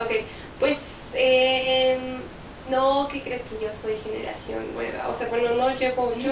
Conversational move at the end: listening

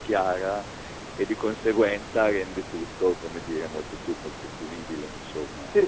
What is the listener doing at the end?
taking over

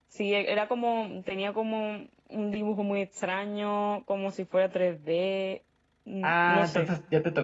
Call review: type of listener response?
taking over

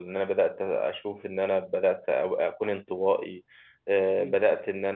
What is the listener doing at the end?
listening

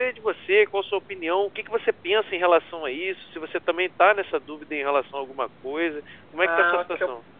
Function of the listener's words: taking over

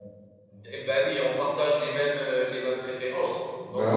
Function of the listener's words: listening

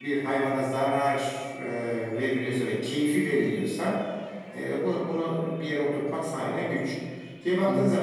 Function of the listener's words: listening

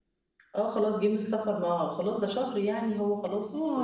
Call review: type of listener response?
taking over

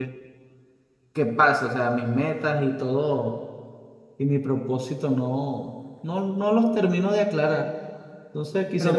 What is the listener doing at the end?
listening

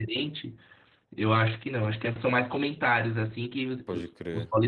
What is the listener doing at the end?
listening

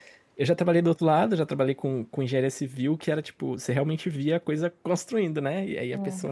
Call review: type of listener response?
listening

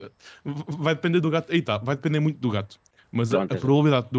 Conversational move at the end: listening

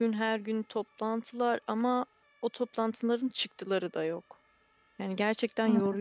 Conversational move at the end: taking over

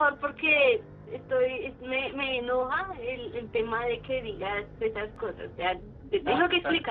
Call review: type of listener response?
taking over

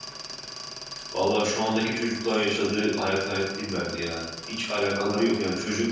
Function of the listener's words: listening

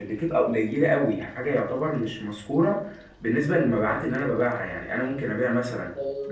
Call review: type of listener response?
listening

